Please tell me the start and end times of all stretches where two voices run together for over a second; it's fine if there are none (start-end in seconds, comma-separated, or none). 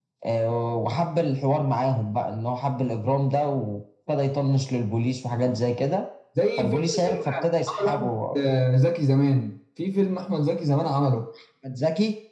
6.6-8.1